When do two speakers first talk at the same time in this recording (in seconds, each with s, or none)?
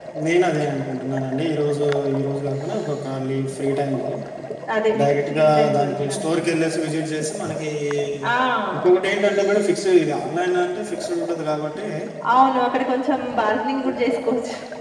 5.0 s